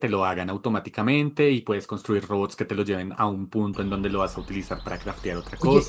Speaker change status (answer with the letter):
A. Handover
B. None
A